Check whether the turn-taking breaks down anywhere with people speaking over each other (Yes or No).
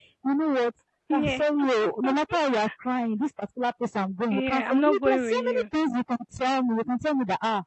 Yes